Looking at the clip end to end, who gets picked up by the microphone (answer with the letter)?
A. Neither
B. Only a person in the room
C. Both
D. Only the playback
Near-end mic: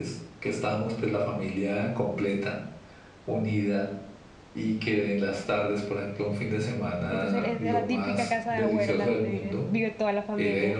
C